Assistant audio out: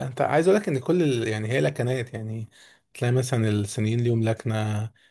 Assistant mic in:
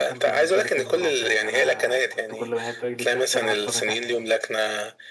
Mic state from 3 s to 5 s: both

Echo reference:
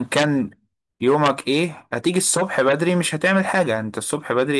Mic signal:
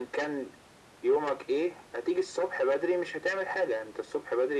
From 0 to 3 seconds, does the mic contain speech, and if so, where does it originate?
echo only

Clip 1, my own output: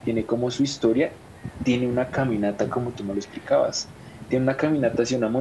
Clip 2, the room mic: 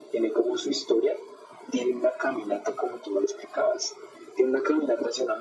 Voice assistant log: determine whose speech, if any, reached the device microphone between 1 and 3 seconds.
echo only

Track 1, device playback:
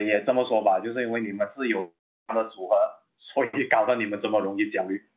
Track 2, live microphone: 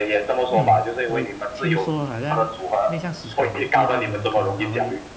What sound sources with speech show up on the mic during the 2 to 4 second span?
both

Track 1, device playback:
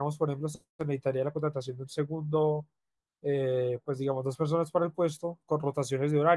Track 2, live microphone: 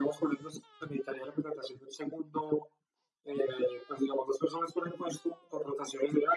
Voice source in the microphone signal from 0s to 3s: echo only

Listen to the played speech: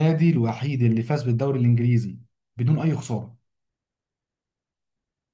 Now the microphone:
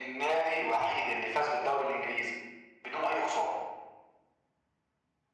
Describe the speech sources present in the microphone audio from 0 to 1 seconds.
echo only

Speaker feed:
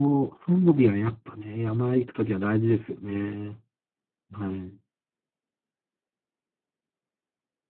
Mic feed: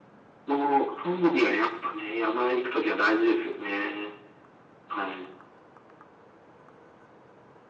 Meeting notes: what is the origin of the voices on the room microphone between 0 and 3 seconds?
echo only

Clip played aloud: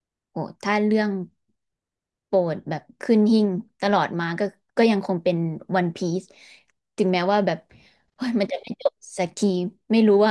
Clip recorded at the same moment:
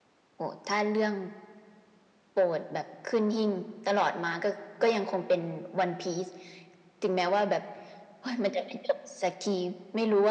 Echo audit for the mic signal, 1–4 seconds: echo only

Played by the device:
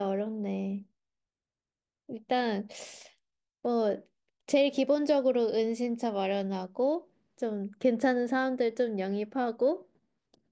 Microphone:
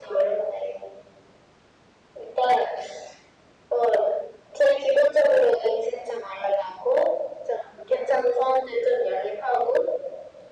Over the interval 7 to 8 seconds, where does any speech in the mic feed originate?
echo only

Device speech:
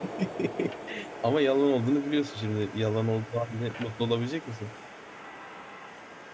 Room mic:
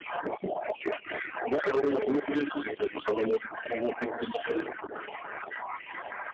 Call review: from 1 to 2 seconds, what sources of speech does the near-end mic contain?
echo only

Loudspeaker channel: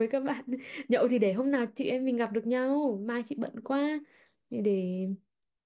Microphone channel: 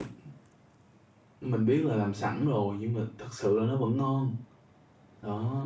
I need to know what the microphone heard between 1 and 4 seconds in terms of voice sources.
user only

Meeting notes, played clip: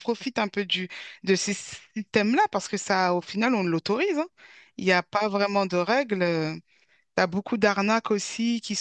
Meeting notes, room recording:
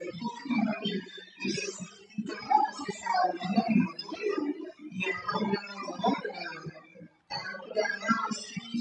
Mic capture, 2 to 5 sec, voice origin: echo only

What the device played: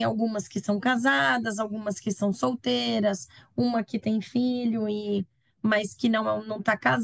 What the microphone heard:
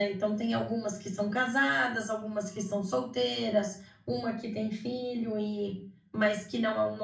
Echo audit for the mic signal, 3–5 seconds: echo only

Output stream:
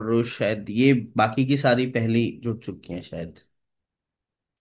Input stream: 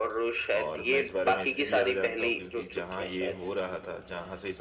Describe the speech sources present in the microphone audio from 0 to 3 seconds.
both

